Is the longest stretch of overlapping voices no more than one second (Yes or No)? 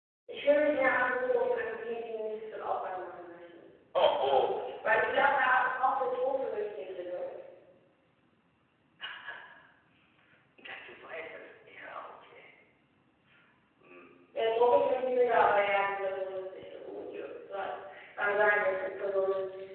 Yes